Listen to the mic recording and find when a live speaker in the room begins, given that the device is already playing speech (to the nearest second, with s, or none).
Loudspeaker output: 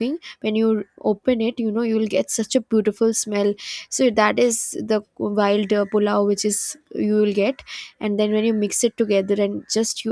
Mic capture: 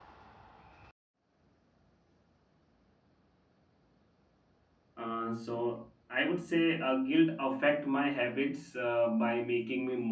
5 s